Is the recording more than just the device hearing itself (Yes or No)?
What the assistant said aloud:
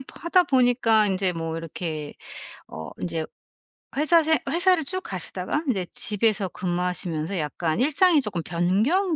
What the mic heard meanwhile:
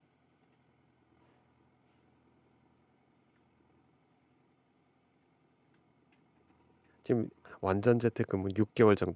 Yes